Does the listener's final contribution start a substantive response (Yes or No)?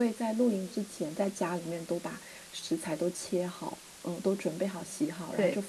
No